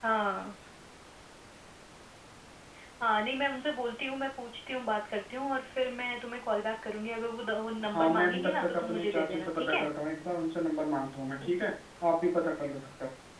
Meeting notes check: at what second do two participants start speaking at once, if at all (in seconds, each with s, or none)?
7.8 s